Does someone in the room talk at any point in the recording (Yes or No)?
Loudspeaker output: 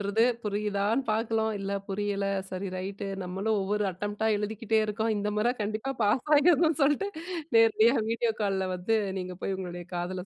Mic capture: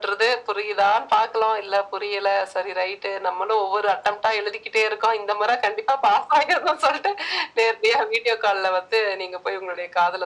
No